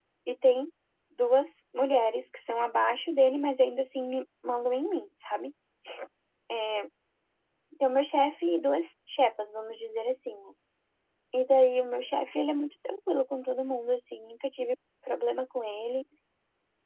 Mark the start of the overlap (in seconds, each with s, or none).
none